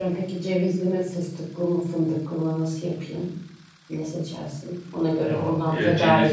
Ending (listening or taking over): taking over